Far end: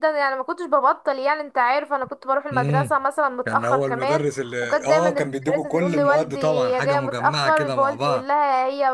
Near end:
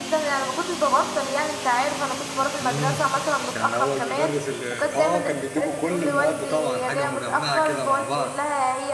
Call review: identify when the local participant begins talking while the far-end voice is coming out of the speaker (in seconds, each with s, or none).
none